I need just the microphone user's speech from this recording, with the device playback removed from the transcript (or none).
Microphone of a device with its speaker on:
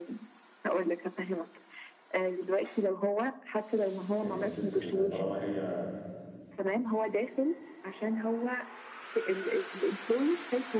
ان الست ال- طالما هي